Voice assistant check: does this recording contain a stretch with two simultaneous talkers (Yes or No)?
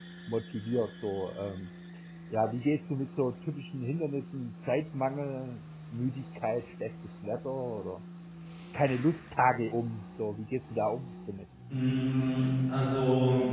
No